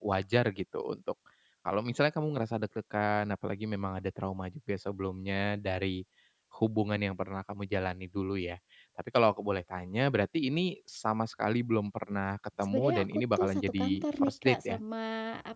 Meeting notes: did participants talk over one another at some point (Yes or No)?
Yes